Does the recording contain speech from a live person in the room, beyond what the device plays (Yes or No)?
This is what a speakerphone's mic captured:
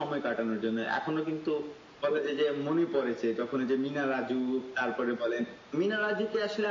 No